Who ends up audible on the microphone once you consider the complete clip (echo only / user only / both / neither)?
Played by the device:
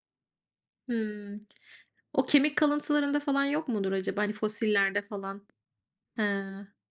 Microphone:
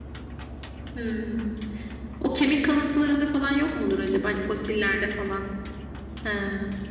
echo only